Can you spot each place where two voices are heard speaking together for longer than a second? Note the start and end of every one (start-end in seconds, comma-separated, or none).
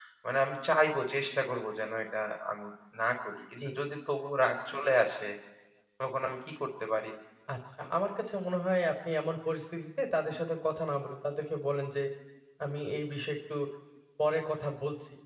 none